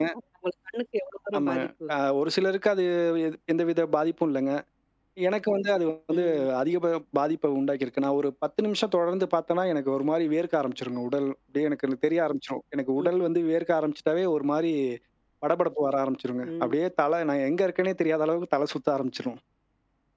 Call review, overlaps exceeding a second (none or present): none